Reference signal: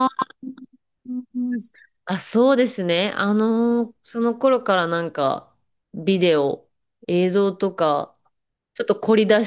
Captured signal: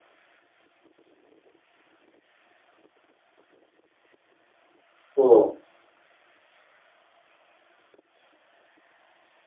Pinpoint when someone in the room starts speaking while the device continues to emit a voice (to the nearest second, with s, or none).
5 s